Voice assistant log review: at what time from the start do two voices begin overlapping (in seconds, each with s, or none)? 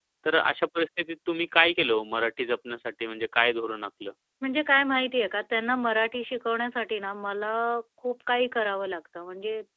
none